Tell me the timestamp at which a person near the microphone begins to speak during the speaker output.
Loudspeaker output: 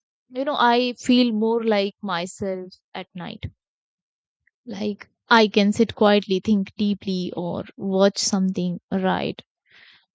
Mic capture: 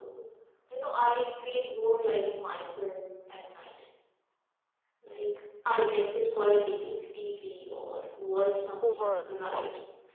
8.8 s

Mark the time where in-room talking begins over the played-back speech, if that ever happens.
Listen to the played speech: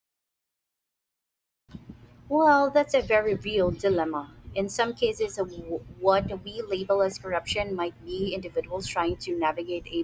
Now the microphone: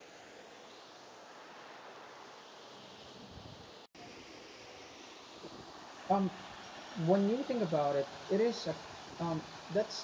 6.1 s

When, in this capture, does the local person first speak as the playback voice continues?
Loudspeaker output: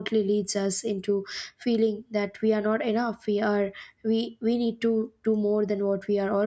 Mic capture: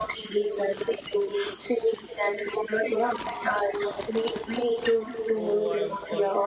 5.3 s

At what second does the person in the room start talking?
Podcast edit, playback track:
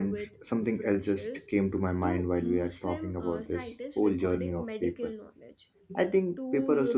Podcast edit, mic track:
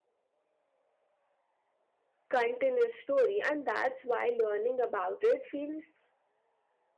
2.3 s

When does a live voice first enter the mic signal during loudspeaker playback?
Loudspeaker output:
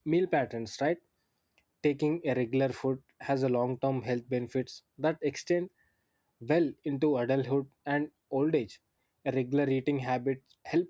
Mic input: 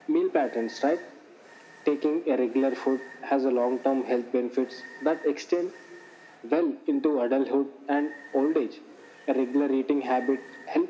none

